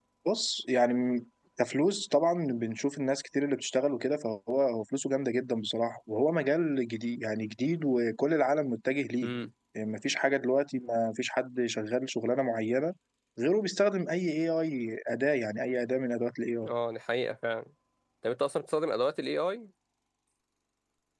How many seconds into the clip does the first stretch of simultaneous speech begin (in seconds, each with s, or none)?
none